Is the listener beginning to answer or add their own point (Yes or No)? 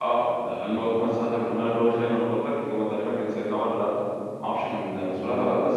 No